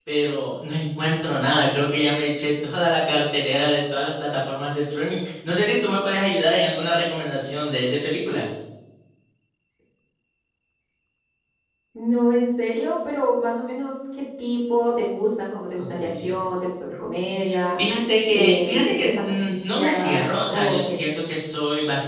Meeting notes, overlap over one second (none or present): present